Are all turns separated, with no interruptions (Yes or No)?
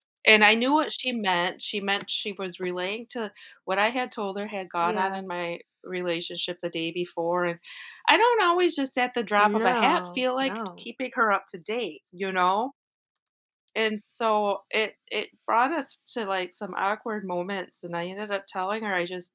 No